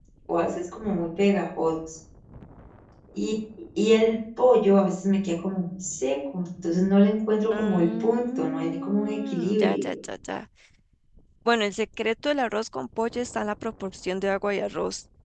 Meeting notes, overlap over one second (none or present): present